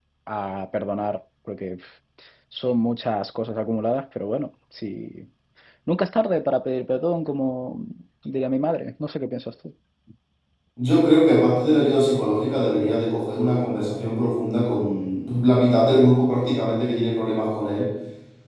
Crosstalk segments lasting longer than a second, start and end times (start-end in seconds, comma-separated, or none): none